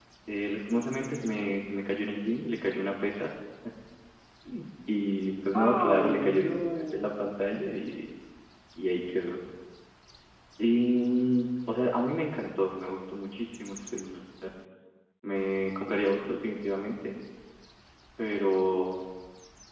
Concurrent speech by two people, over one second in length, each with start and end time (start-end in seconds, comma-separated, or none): 5.5-7.3